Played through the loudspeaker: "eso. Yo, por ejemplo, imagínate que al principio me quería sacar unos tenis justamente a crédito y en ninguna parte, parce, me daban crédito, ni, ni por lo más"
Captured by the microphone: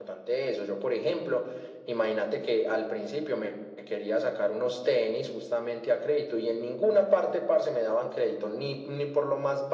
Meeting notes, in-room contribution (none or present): none